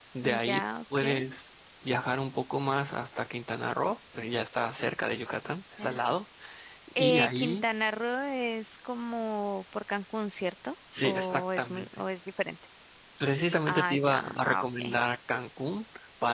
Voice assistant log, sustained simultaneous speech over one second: present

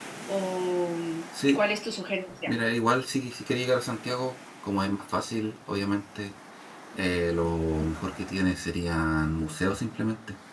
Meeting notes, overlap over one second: none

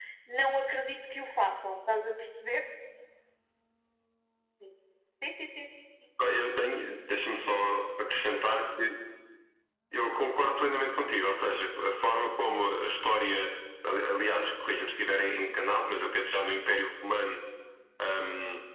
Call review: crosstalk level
none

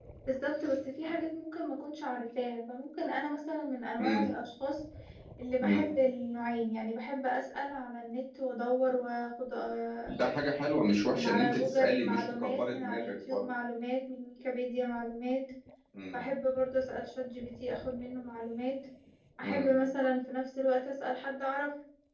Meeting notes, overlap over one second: present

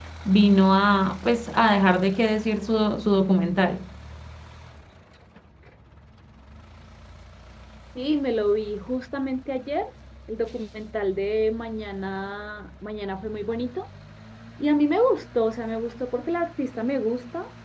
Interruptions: none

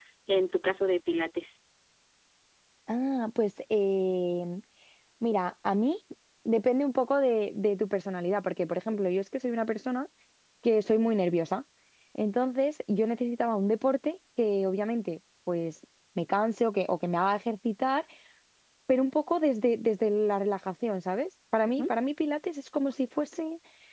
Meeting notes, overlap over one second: none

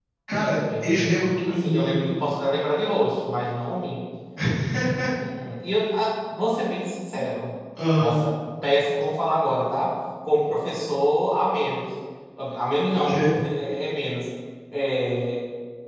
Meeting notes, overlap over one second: present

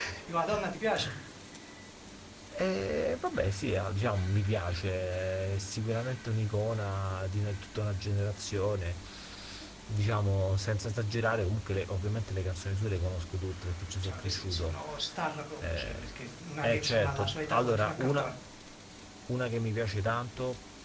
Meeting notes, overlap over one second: present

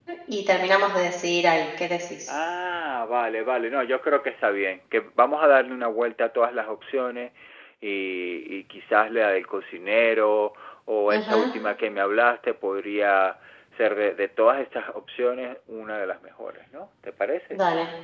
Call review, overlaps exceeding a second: none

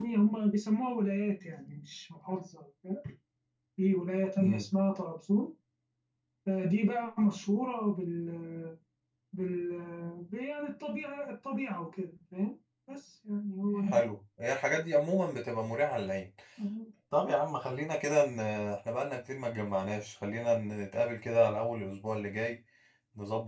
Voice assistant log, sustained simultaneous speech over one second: none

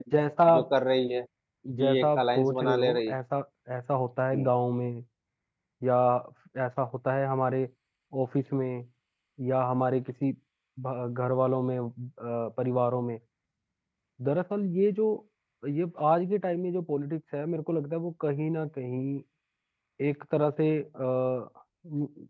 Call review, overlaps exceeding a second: present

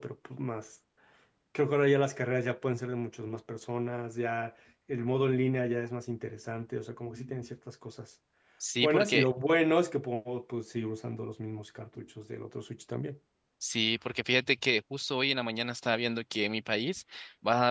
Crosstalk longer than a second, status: none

